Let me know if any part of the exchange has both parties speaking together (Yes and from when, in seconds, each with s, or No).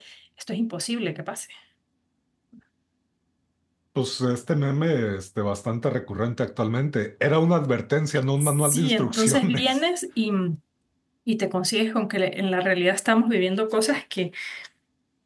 Yes, from 8.4 s